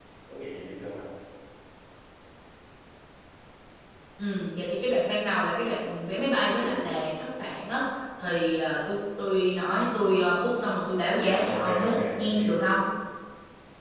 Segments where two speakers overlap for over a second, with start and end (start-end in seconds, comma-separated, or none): 11.1-12.4